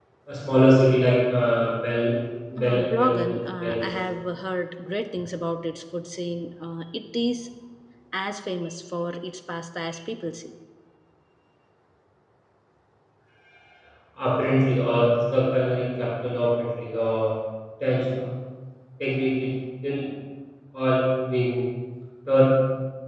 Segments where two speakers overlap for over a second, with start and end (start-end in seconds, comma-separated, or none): 2.6-3.9